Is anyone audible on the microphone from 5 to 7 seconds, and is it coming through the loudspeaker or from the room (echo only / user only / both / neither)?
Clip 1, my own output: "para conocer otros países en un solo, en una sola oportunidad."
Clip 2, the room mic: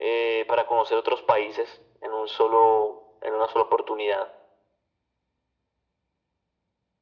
neither